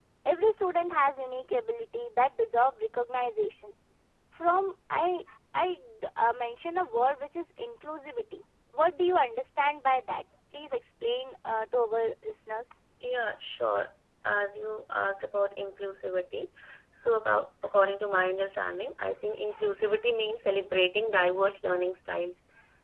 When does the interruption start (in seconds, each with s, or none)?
none